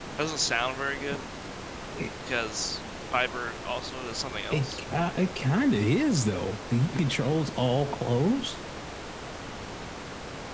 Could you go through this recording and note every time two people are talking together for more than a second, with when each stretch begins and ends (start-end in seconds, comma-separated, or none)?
none